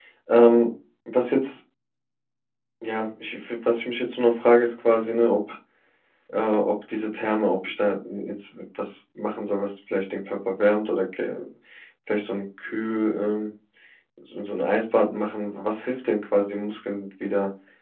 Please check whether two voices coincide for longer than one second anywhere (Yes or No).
No